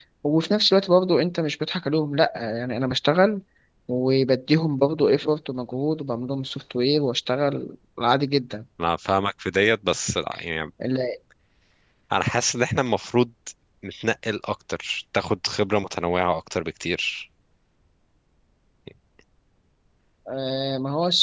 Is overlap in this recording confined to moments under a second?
Yes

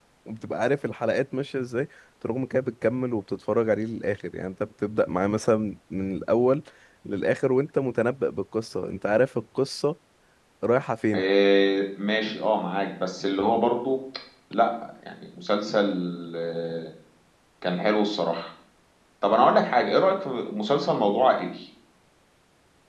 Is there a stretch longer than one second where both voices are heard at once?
No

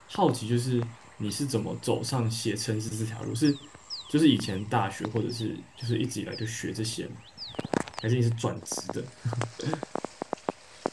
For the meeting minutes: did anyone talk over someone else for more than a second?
No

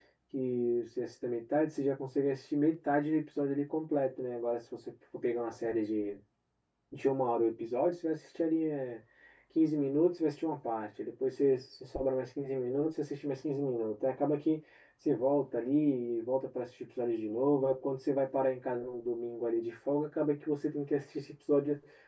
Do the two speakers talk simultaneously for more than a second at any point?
No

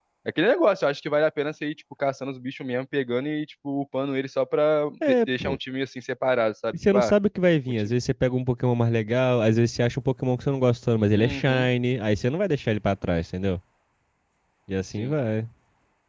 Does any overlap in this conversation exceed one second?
No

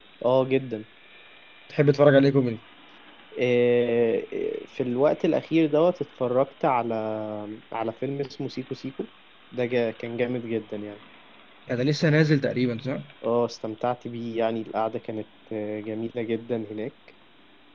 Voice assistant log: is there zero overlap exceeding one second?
Yes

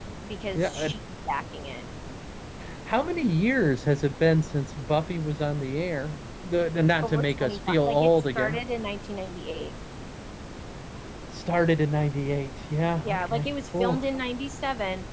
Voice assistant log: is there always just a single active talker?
No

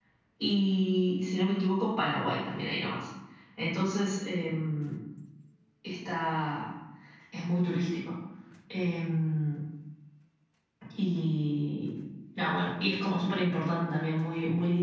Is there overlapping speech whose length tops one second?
No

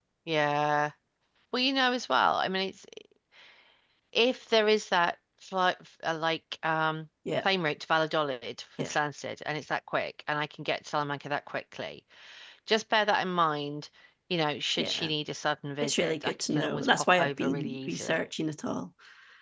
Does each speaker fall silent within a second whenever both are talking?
No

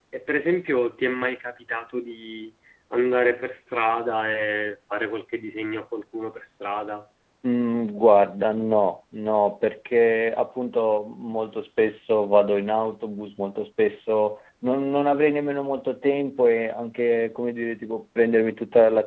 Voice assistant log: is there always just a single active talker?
Yes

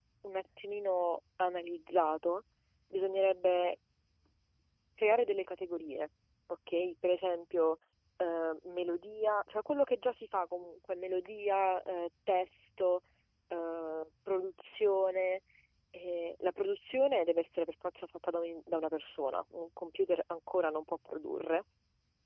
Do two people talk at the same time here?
No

